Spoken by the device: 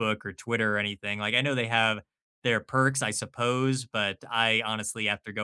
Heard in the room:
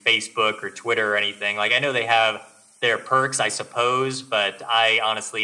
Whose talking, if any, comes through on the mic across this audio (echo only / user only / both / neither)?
echo only